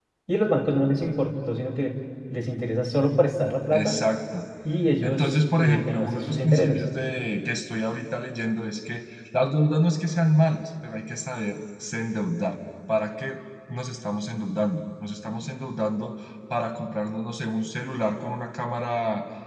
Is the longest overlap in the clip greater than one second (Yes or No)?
Yes